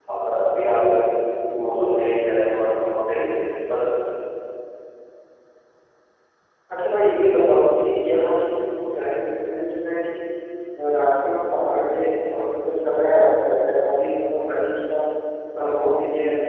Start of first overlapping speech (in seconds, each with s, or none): none